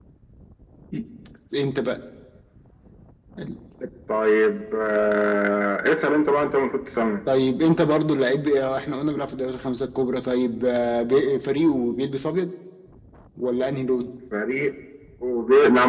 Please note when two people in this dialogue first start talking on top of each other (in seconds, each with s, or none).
none